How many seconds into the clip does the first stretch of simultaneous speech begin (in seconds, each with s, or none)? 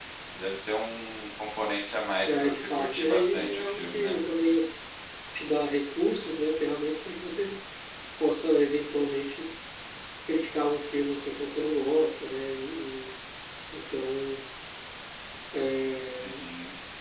2.2 s